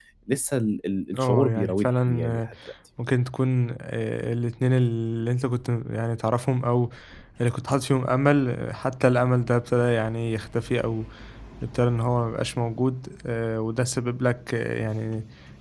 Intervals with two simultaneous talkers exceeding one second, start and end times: 1.2-2.5

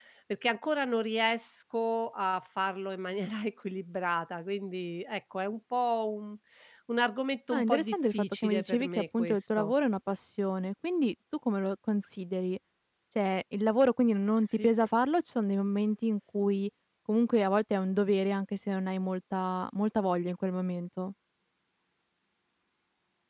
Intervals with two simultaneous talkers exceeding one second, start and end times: 7.5-9.7

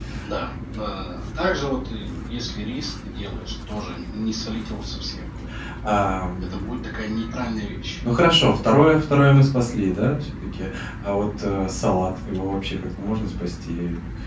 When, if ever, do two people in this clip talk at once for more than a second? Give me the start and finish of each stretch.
none

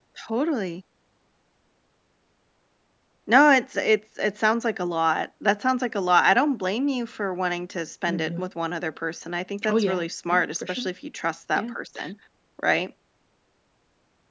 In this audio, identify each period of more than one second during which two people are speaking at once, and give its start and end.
9.7-10.9

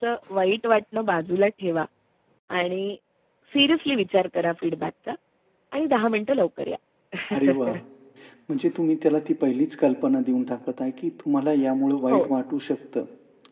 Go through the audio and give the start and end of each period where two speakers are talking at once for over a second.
none

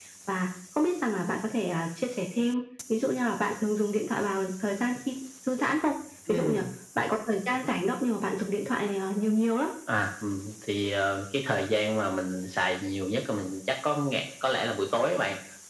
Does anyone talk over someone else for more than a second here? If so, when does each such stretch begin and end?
none

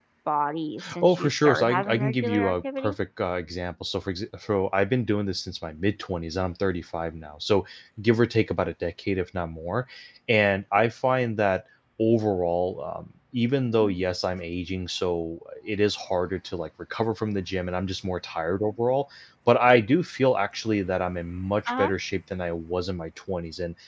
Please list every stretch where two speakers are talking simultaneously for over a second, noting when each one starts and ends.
1.0-3.0

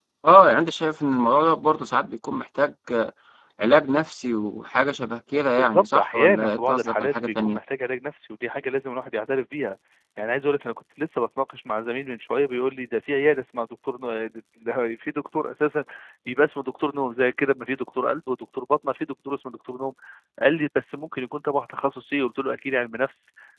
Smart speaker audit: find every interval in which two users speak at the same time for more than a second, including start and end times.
5.6-7.6

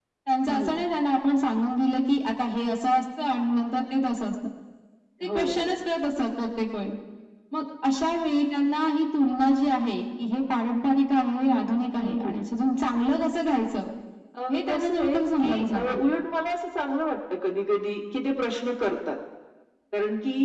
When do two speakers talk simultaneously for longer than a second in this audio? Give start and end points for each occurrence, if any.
14.5-16.0

